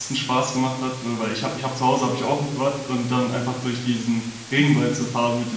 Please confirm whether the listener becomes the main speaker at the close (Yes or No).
No